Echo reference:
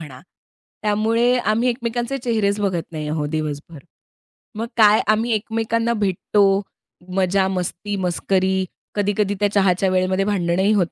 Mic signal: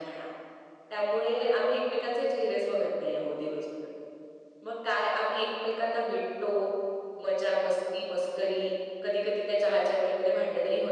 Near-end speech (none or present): none